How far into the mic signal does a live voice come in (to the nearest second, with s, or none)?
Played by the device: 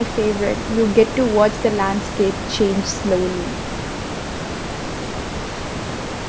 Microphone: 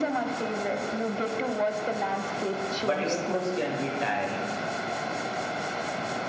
3 s